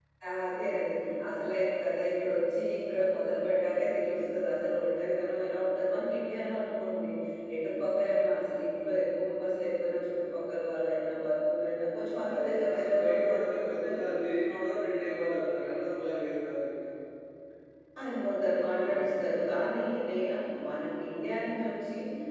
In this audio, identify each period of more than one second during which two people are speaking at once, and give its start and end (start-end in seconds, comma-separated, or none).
12.3-13.9